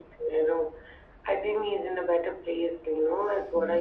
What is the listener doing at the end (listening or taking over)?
listening